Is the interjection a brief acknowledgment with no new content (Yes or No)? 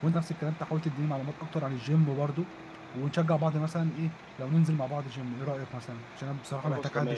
No